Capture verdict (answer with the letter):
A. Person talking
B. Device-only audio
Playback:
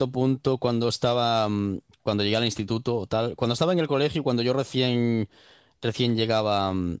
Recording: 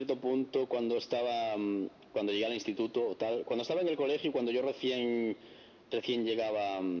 B